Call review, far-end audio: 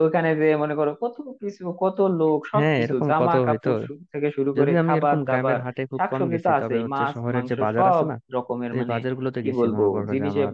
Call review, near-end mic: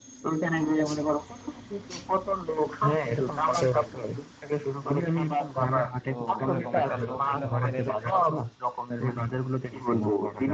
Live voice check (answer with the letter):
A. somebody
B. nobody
A